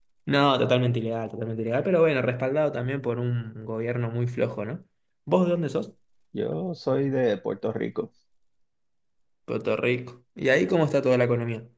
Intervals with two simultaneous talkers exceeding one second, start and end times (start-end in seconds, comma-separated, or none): none